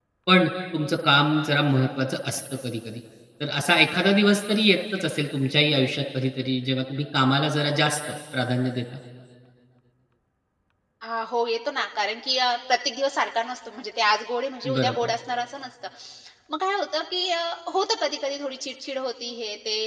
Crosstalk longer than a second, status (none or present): none